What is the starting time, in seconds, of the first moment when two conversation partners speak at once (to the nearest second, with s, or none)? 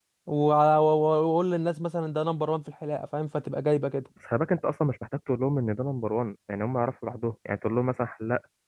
none